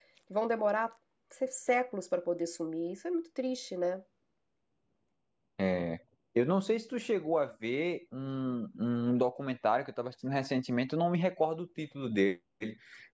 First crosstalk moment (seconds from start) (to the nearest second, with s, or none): none